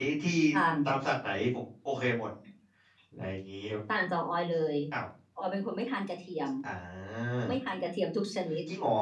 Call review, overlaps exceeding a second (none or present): none